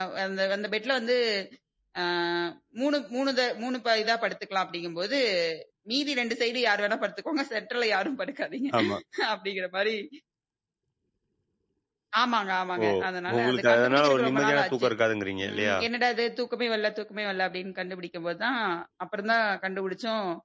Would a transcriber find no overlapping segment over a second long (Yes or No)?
No